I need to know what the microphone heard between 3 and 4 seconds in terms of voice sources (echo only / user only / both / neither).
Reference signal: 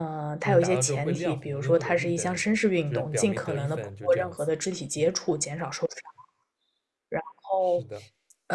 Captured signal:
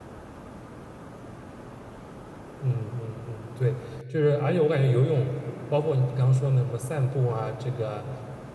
user only